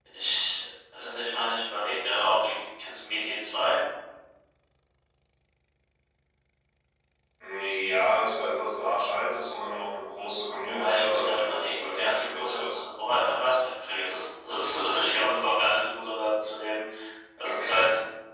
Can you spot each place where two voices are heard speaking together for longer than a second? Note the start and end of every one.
10.6-12.8

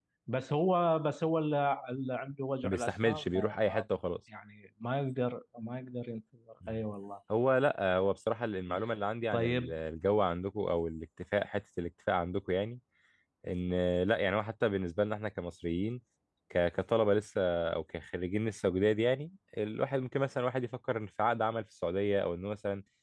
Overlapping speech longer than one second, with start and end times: 2.6-3.9

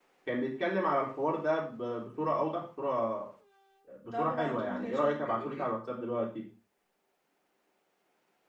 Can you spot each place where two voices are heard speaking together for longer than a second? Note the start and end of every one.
4.1-5.7

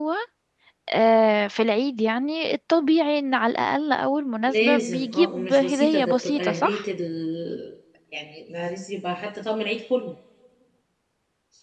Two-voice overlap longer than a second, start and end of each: 4.4-6.8

